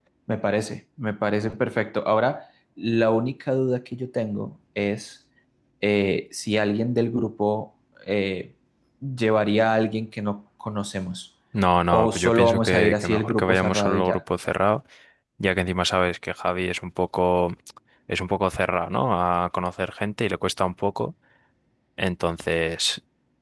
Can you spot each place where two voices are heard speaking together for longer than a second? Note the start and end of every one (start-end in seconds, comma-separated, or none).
11.9-14.2